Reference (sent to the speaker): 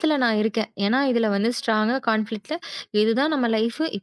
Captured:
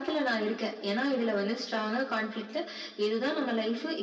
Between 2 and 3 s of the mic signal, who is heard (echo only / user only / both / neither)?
echo only